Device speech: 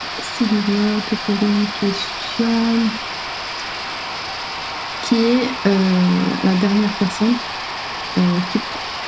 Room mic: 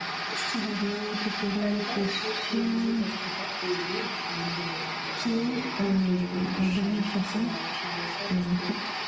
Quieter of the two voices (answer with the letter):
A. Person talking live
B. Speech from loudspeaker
A